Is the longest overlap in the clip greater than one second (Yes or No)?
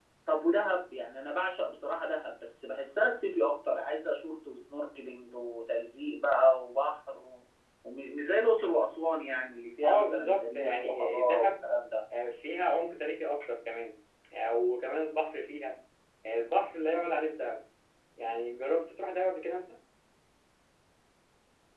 Yes